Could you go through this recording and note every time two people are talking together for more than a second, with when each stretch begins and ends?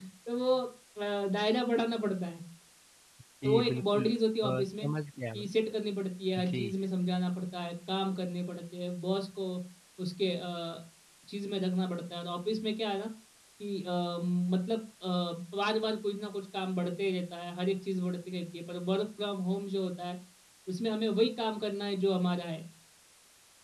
3.4-4.9

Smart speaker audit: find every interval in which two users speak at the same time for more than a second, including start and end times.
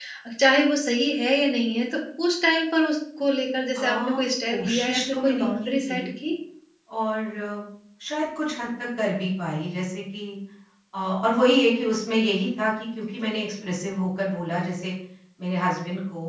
3.8-6.0

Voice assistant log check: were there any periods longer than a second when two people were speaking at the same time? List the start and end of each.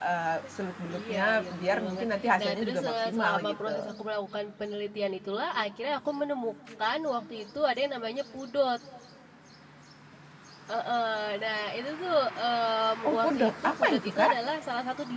0.9-3.9, 13.1-14.3

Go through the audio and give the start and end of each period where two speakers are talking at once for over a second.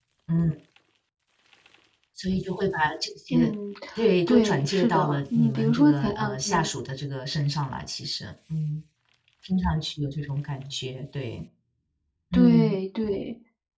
4.3-6.7

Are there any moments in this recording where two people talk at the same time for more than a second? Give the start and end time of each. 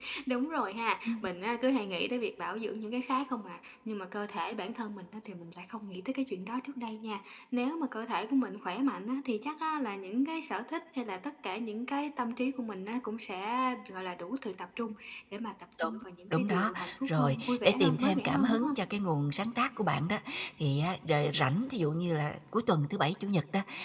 16.3-18.8

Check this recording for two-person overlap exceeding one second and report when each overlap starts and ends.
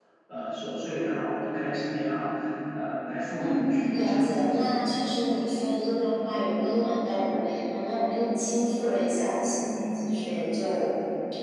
3.4-4.7

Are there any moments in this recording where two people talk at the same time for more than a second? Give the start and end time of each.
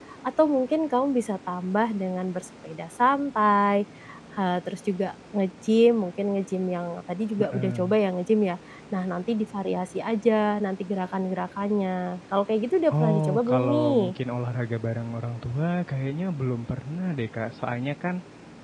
12.9-14.1

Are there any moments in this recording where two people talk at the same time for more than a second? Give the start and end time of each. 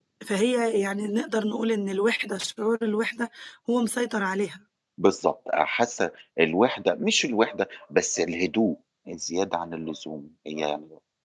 none

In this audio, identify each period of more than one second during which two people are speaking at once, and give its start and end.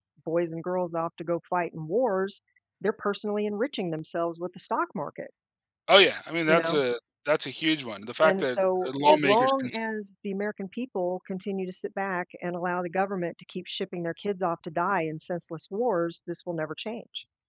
8.2-9.8

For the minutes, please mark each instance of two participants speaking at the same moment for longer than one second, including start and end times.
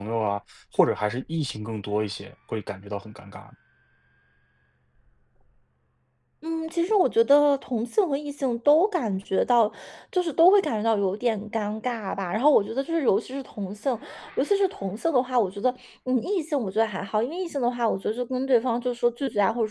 none

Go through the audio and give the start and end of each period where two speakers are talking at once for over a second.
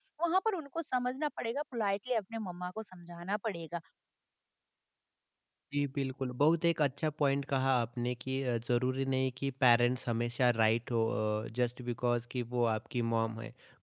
none

